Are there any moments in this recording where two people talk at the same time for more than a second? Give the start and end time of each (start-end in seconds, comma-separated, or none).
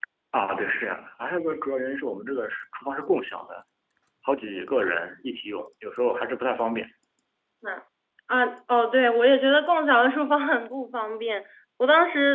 none